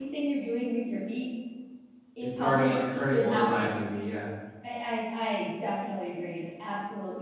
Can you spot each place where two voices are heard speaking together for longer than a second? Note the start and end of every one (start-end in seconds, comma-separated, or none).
2.2-3.8